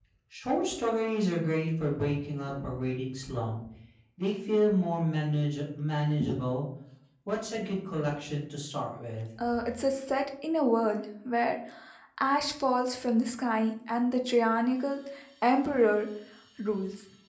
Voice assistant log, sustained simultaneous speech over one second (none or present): none